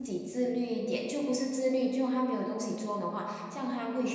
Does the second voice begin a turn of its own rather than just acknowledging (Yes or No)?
Yes